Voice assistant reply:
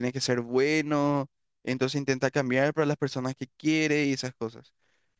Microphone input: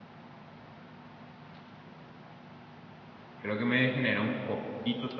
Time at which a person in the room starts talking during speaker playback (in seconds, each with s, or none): 3.4 s